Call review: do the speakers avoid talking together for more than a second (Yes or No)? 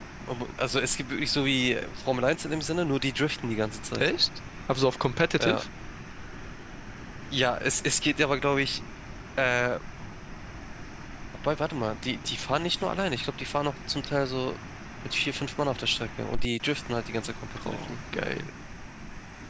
Yes